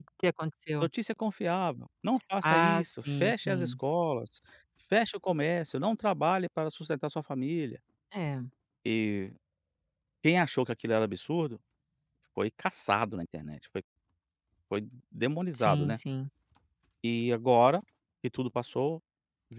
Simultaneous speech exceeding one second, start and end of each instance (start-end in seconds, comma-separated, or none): 2.4-3.7